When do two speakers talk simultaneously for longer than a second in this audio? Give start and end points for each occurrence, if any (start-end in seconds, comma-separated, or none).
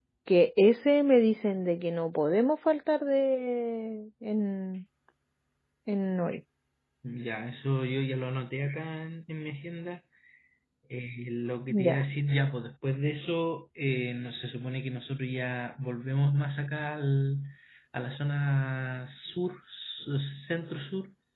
none